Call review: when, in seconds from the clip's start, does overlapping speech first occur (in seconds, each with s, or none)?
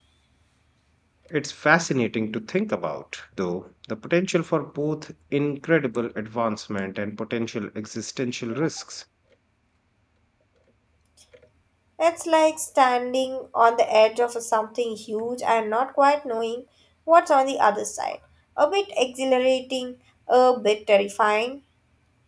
none